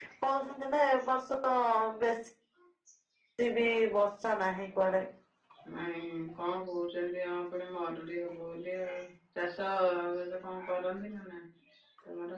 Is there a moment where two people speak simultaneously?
No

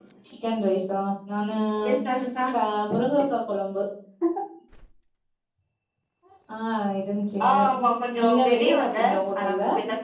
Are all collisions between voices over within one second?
No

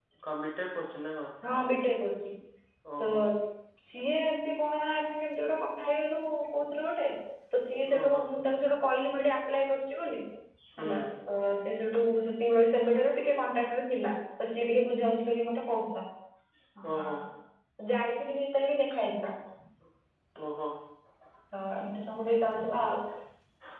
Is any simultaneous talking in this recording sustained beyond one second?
No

